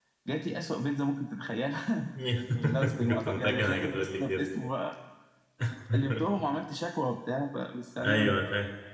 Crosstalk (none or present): present